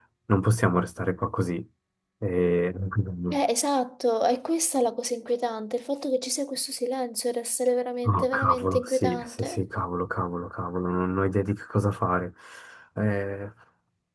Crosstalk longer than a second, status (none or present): present